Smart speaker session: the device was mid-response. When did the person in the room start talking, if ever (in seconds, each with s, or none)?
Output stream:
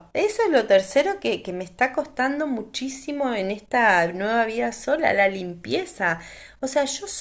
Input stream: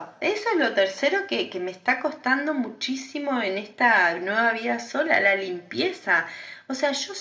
none